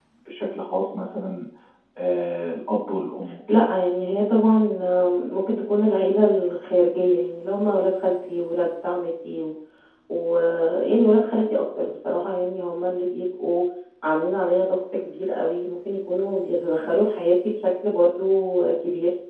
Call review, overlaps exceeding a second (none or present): none